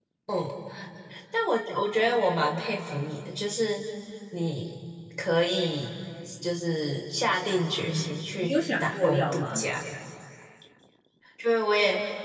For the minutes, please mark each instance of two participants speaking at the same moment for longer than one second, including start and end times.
7.8-9.6

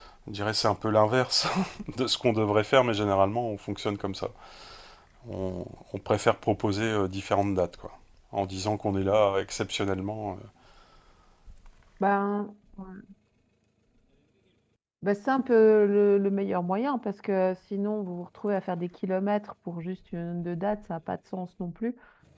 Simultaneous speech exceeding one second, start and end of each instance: none

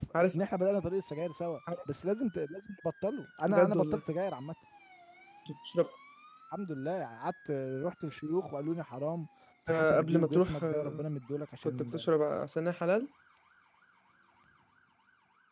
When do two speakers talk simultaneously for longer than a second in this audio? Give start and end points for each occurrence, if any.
9.7-11.0

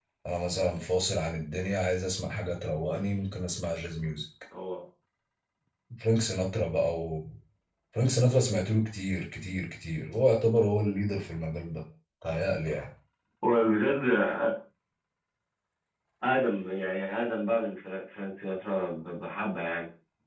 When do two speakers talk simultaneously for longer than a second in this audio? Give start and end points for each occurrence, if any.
none

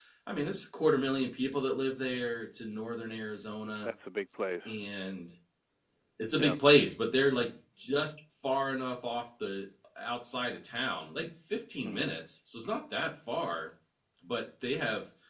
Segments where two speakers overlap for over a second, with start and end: none

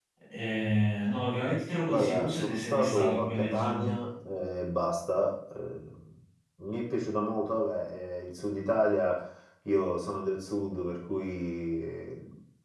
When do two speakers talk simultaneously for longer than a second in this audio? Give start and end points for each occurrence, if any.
1.9-4.0

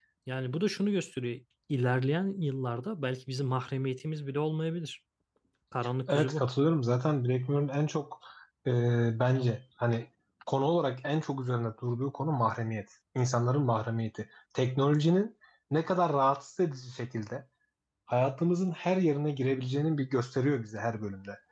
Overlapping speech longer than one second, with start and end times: none

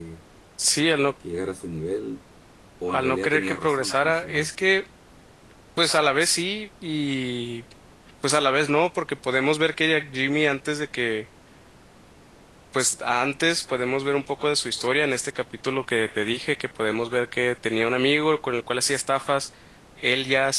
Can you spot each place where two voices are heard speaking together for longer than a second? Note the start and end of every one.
2.9-4.5

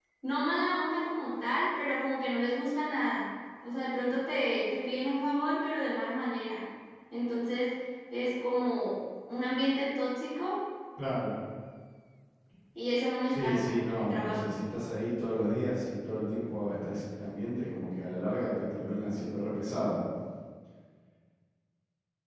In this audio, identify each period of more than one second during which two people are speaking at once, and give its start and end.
13.3-14.6

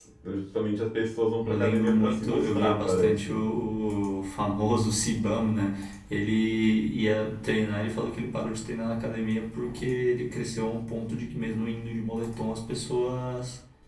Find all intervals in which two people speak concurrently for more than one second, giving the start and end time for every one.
1.4-3.4

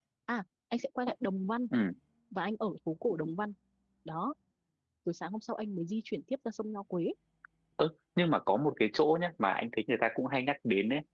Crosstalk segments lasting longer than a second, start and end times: none

